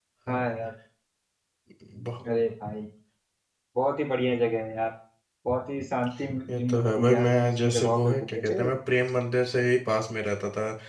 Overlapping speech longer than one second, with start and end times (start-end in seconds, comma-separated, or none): 6.6-8.5